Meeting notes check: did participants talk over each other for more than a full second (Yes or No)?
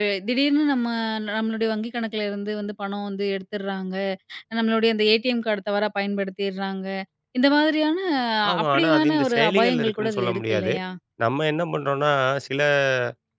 Yes